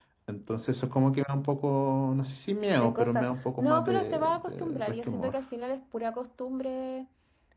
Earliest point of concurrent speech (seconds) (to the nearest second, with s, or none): 3 s